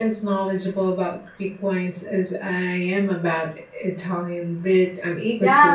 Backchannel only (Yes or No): No